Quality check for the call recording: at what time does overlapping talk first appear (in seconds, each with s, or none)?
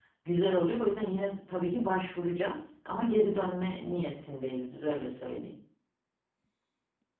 none